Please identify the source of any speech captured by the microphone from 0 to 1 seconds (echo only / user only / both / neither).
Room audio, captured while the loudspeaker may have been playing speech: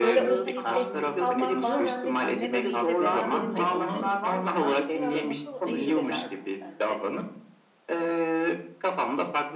both